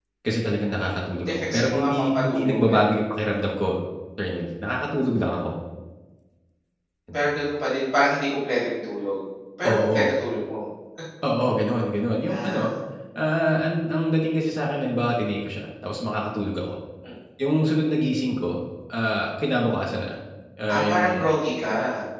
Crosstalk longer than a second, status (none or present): present